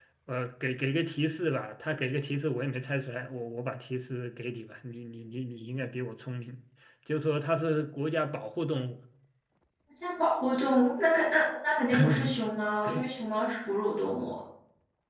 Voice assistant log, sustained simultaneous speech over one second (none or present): none